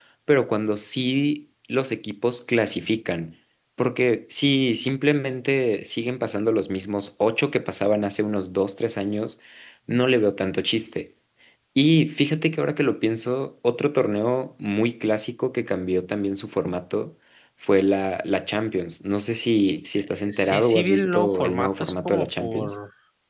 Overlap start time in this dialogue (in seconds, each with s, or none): 20.0 s